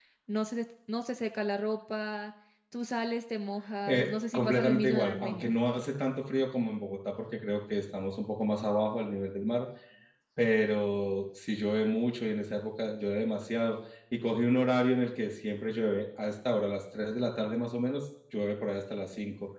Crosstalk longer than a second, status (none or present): present